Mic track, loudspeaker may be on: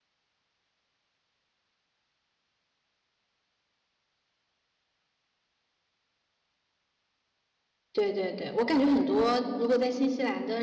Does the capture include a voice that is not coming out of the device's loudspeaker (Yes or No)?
Yes